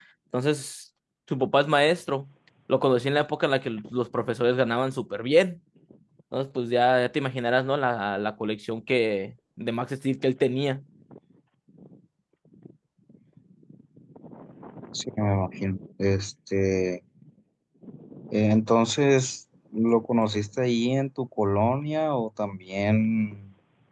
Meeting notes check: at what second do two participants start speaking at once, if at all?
none

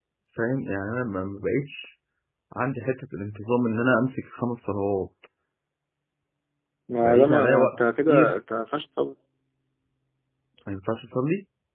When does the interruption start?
7.0 s

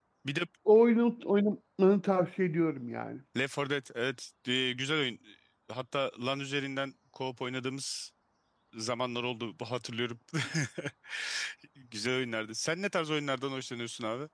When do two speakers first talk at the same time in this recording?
none

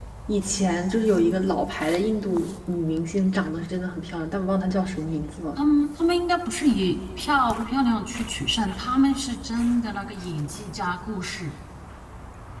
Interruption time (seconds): none

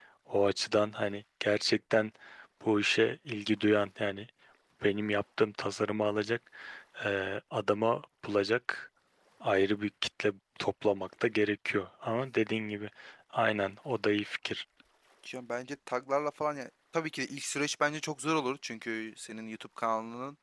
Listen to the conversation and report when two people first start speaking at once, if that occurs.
none

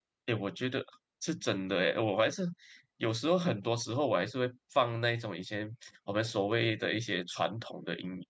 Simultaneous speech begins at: none

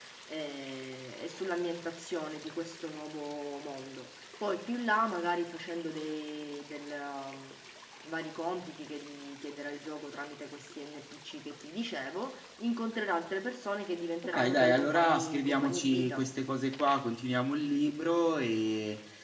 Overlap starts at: 14.2 s

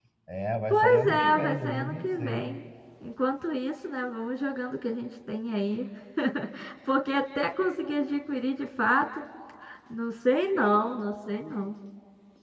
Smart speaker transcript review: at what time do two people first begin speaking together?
0.7 s

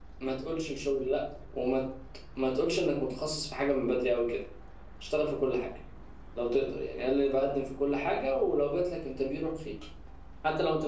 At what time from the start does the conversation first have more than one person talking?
none

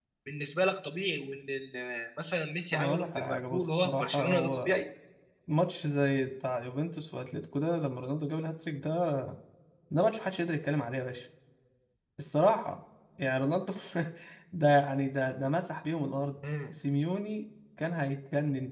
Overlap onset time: 2.7 s

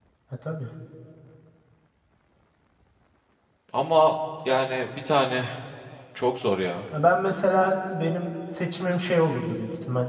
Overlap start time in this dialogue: none

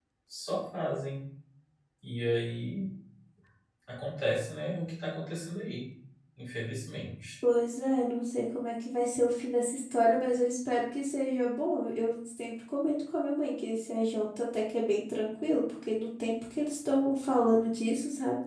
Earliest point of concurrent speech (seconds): none

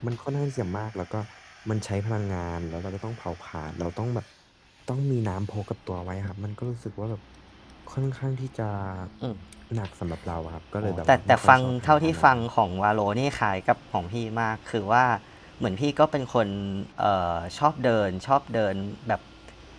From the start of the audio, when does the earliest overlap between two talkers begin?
10.8 s

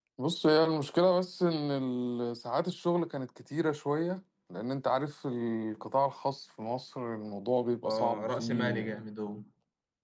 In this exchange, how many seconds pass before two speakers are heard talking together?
7.8 s

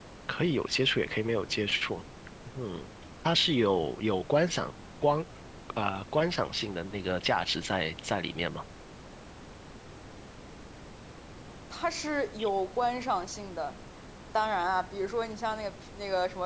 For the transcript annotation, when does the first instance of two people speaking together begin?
none

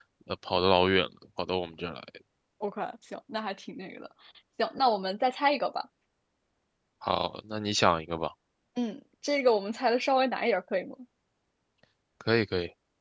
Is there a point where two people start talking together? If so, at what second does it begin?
none

